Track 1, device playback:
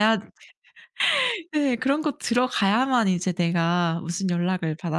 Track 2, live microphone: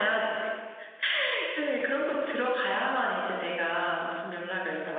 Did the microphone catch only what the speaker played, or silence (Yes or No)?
Yes